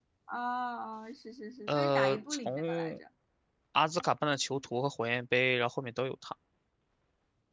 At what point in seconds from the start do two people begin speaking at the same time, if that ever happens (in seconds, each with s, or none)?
1.7 s